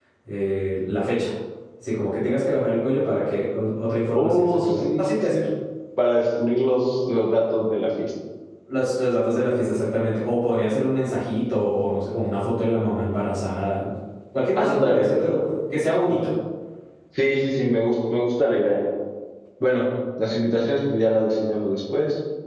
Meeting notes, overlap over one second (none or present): present